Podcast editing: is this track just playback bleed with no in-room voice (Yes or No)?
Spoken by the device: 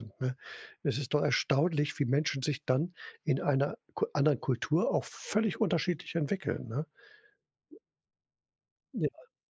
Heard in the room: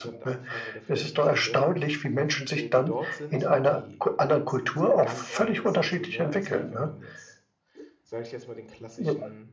No